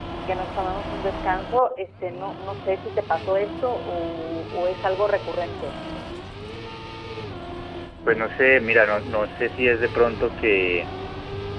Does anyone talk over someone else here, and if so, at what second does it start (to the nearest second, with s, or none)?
none